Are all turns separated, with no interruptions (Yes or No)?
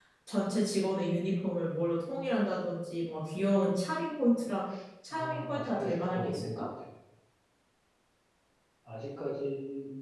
No